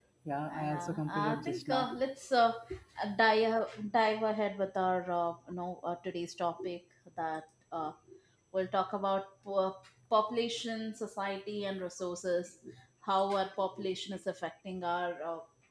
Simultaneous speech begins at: 0.5 s

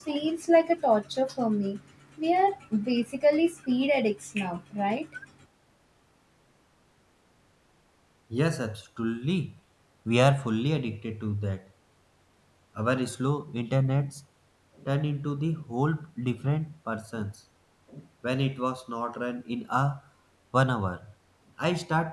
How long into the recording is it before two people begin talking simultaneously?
none

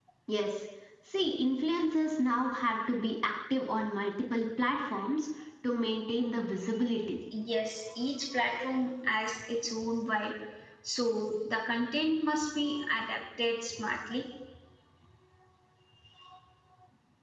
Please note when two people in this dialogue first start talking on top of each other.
none

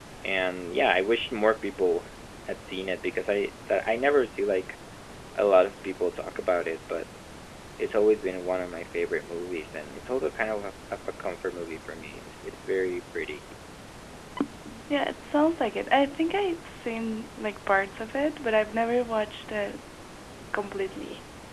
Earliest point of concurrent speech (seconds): none

